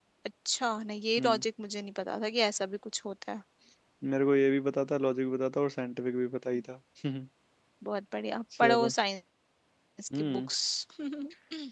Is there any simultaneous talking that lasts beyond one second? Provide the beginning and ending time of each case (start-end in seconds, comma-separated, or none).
none